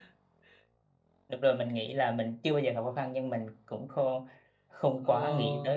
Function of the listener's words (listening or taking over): taking over